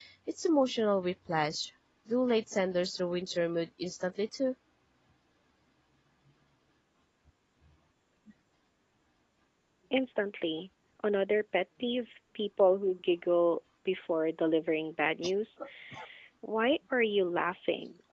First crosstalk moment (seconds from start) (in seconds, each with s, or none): none